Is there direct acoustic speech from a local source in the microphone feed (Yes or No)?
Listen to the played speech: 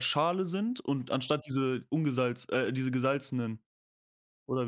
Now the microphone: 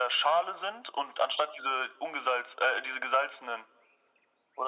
No